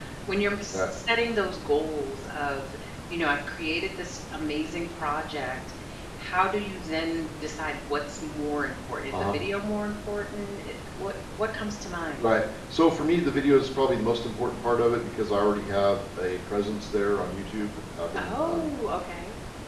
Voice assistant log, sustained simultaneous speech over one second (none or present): none